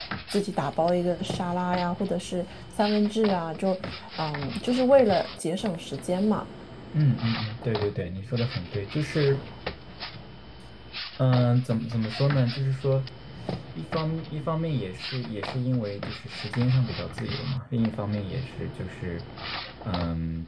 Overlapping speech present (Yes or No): No